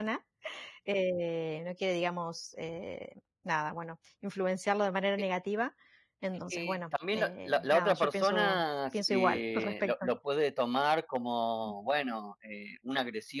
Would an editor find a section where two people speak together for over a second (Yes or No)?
Yes